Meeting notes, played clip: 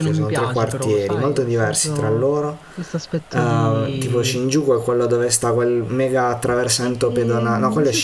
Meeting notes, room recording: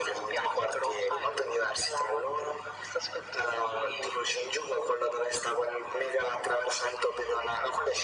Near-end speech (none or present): none